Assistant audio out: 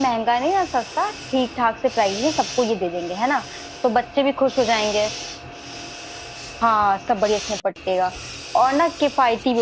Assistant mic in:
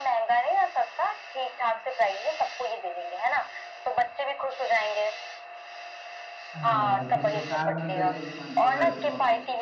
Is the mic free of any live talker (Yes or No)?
No